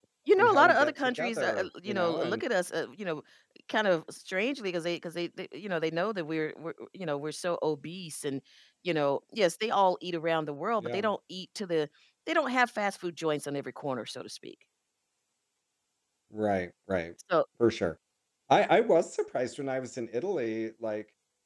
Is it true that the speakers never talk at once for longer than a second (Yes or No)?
No